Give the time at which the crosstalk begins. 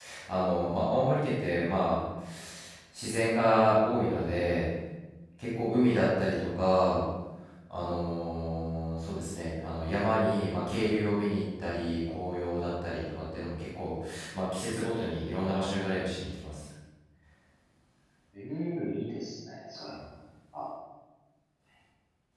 none

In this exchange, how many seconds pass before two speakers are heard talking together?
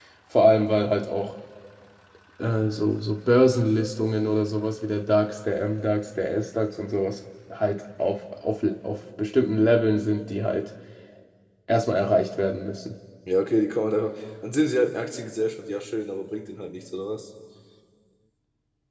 none

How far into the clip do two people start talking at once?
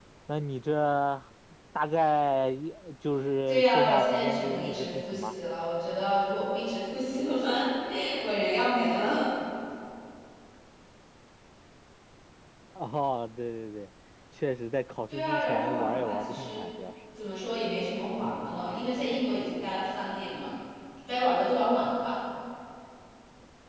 3.5 s

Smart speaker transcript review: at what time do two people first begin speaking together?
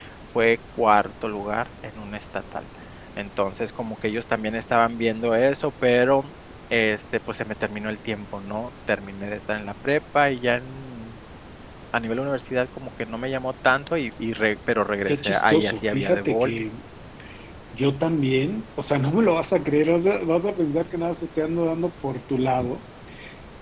15.1 s

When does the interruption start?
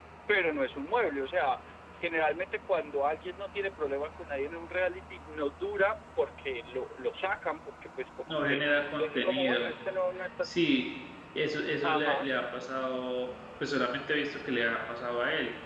8.3 s

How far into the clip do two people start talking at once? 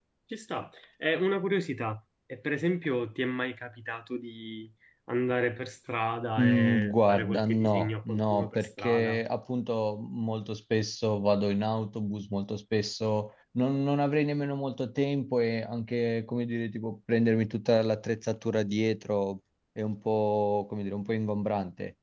6.4 s

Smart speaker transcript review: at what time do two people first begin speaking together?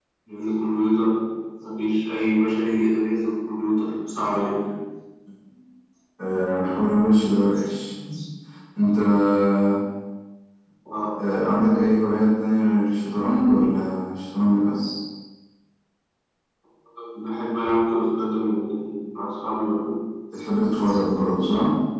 none

